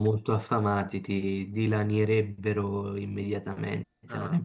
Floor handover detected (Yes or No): Yes